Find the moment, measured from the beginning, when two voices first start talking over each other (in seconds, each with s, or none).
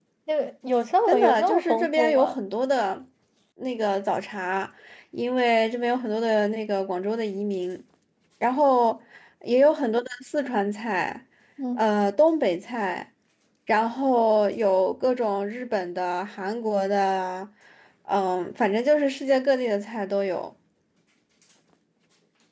1.1 s